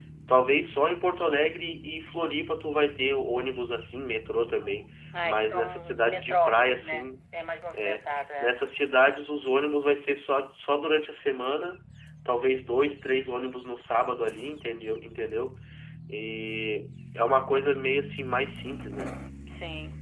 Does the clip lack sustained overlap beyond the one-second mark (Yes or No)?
No